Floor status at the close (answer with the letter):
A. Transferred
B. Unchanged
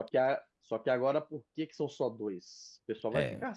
B